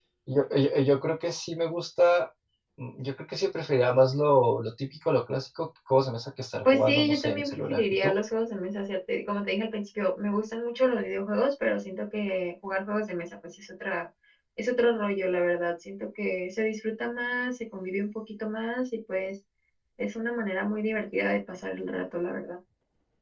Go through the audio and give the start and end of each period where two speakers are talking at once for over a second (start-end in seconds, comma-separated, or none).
6.6-8.1